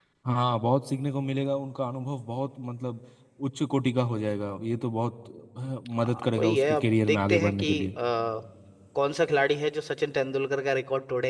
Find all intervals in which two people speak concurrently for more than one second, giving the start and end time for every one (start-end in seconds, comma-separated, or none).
6.0-7.9